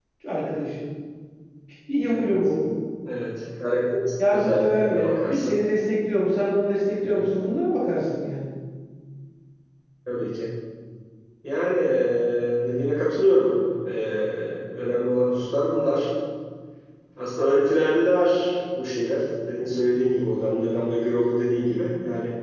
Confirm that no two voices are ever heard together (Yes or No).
No